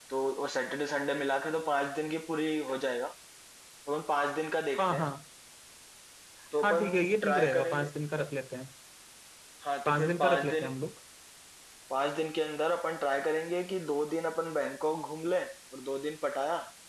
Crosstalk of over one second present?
Yes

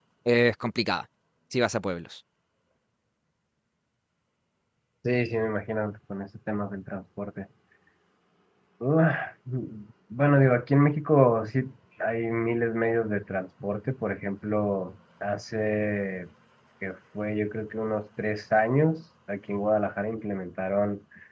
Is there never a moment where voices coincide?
Yes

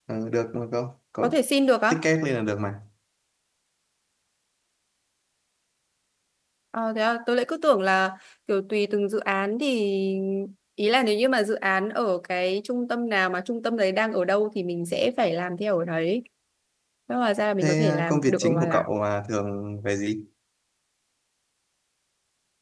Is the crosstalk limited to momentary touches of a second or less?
No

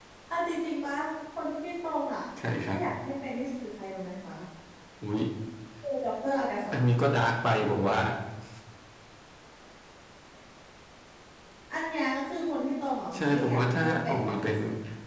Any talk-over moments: Yes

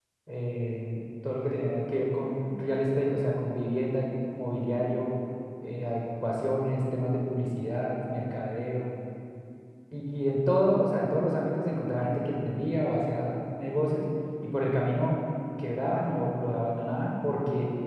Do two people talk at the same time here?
No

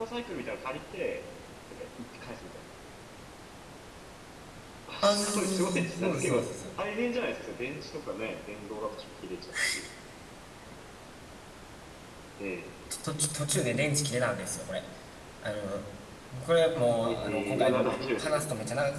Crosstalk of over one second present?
Yes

